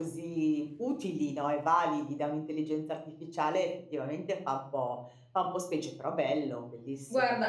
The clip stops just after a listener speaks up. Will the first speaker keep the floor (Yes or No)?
No